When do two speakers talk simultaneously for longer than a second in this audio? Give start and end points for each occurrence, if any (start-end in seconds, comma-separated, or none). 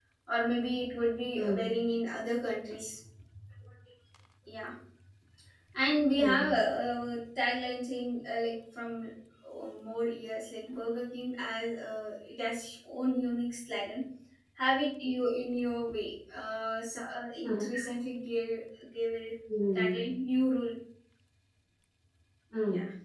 none